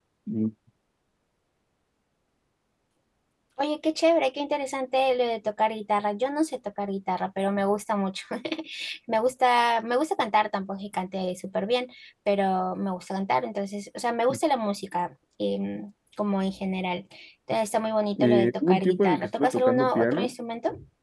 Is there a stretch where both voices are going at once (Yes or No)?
Yes